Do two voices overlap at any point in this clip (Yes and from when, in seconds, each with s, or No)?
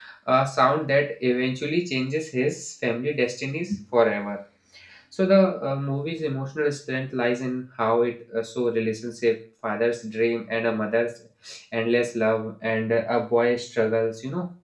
No